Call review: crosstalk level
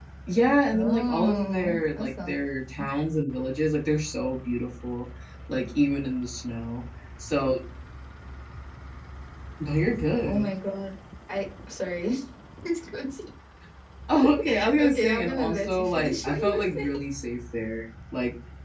present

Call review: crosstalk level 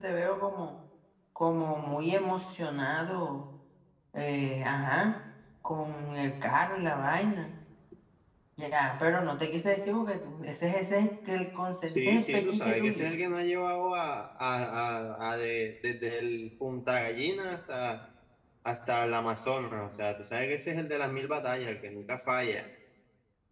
present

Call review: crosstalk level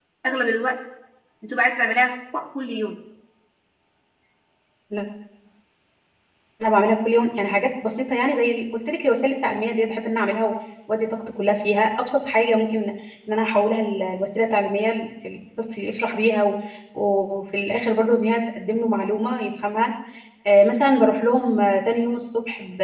none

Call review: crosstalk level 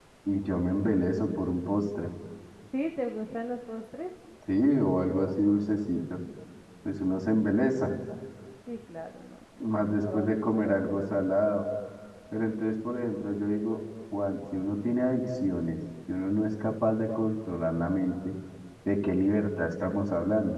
present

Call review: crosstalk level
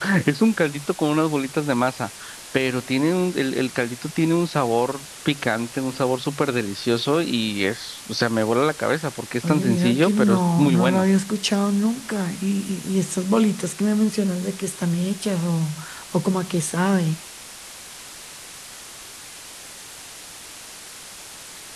present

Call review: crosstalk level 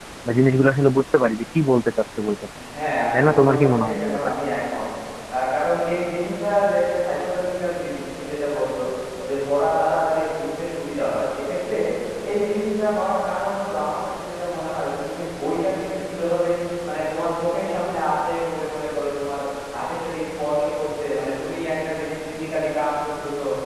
present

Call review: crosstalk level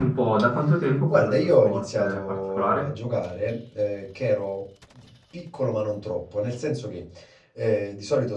present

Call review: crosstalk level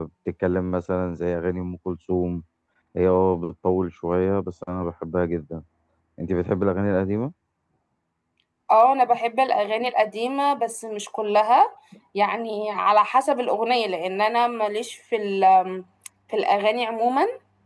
none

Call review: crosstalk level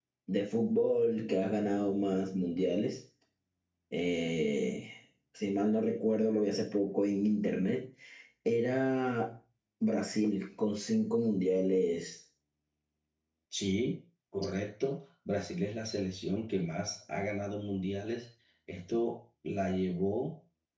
none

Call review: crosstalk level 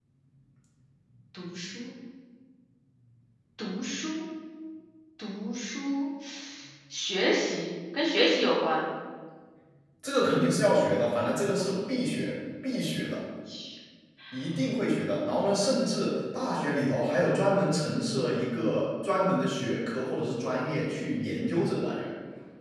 none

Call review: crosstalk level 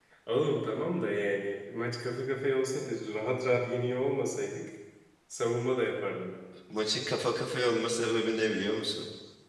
none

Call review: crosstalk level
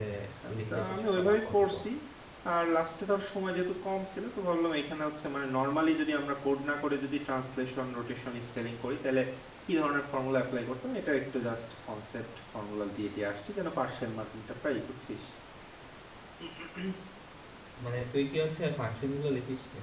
present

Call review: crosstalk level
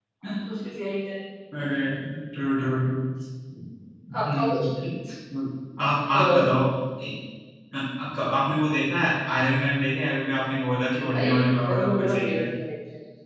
present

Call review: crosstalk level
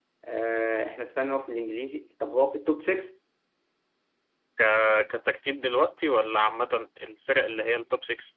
none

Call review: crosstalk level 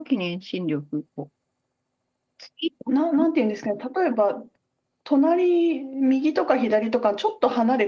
none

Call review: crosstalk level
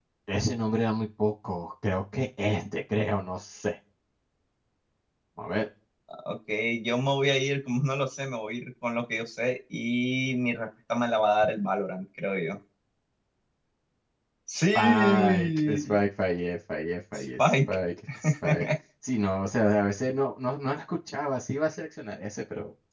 present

